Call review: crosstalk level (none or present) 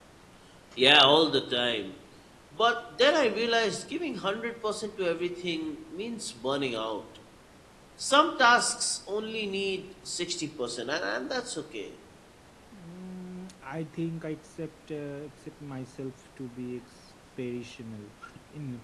none